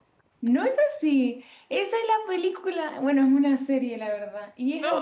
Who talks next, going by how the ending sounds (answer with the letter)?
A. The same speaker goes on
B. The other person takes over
A